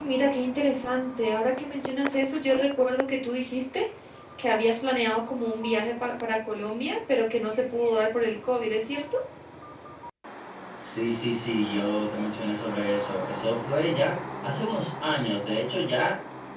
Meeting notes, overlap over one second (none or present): none